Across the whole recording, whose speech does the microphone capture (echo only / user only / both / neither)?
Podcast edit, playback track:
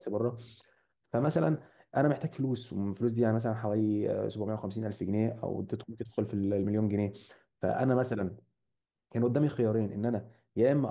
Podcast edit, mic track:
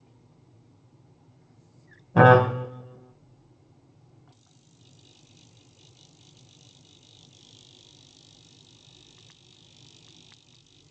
user only